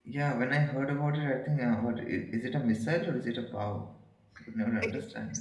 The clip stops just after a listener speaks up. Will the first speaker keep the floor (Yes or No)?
No